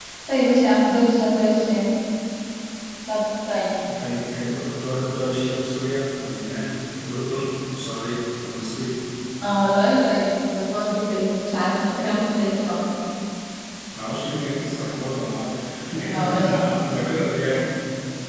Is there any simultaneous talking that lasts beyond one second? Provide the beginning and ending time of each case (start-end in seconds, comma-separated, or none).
none